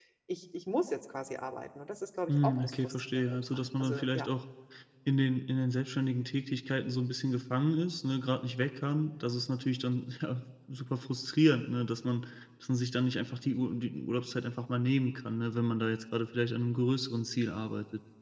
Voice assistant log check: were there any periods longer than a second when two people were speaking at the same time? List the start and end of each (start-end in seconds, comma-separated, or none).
2.3-4.3